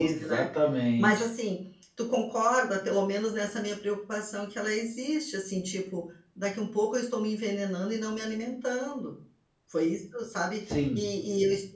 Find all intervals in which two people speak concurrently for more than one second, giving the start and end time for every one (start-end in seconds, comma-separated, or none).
none